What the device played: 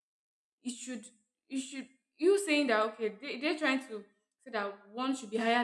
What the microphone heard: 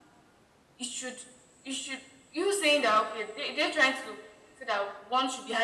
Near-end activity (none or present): none